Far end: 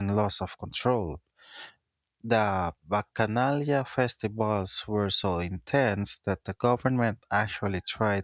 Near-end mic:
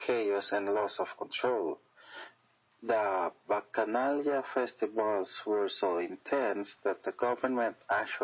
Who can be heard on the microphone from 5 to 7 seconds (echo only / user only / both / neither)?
echo only